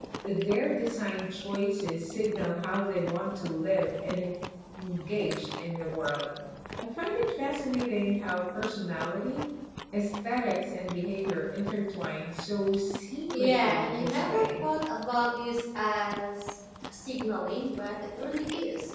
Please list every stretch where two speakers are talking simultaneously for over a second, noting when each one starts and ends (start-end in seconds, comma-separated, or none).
13.3-14.6